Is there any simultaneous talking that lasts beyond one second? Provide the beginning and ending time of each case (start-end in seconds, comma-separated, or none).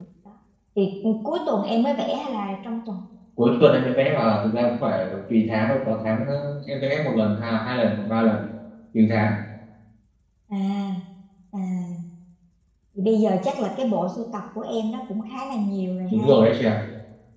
none